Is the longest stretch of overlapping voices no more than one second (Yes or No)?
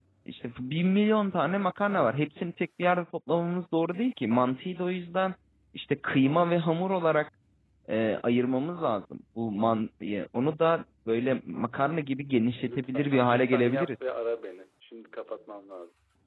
No